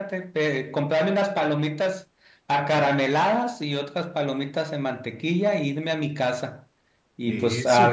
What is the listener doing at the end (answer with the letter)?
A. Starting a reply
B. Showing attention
B